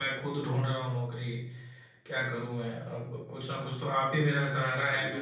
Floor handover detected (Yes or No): No